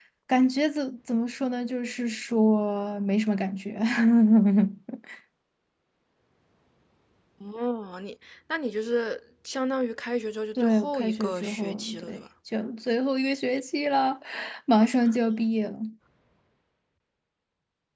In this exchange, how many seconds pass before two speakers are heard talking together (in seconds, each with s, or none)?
10.6 s